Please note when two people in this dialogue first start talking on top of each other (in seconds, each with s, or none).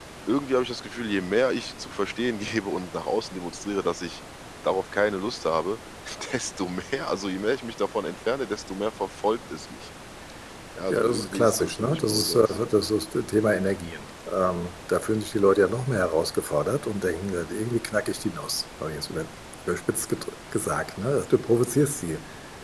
10.9 s